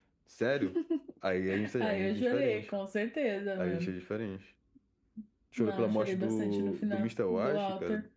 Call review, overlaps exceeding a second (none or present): present